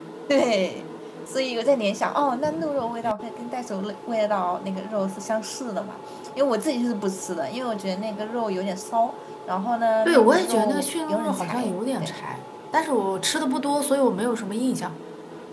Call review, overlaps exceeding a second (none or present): present